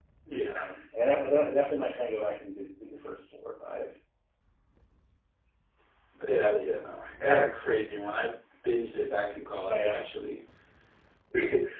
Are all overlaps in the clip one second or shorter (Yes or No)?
Yes